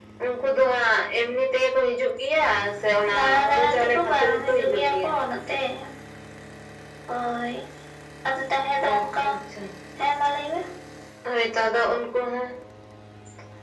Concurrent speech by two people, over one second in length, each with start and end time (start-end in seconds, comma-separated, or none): 3.1-5.1